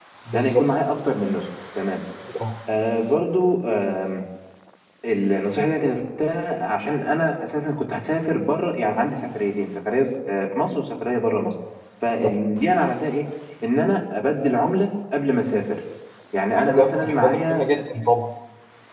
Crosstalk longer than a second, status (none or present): present